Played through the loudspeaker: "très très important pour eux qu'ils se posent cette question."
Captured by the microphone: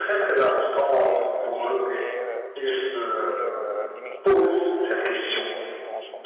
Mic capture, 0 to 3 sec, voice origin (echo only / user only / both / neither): both